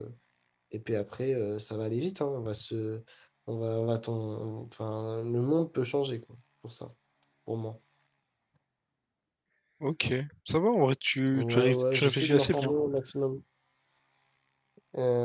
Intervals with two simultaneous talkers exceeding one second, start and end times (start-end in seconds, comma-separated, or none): 11.3-12.7